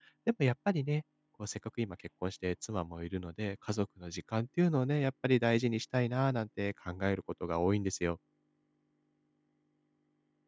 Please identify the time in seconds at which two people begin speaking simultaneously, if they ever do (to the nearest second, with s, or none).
none